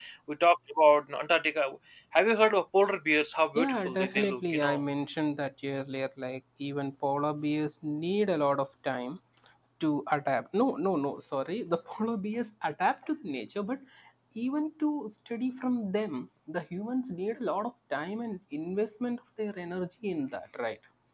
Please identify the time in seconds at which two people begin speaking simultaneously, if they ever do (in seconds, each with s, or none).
3.5 s